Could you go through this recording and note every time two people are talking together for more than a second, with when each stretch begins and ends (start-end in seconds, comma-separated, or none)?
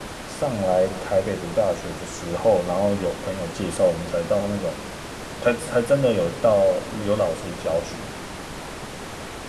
none